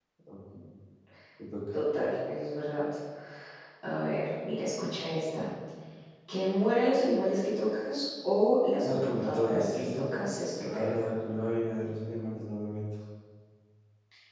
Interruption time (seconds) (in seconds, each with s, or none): 8.8 s